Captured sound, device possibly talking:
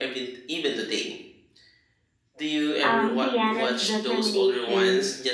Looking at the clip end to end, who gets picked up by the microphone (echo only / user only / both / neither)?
both